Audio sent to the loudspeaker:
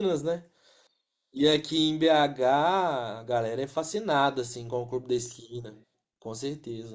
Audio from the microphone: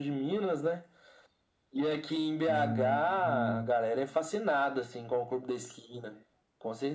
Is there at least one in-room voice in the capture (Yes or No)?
Yes